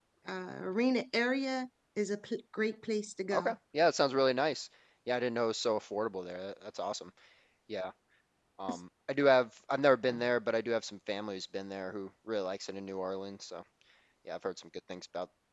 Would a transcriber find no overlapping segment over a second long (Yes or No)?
Yes